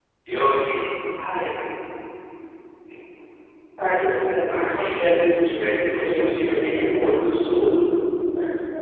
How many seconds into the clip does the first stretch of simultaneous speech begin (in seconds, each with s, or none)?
4.6 s